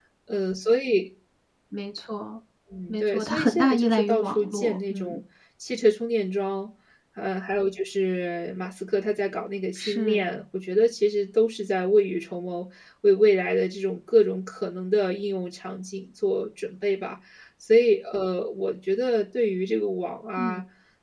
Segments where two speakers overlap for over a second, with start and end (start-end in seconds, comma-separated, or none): 2.9-5.2